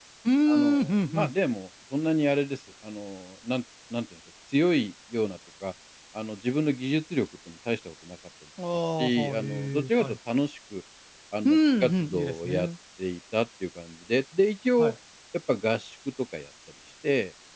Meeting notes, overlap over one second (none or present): present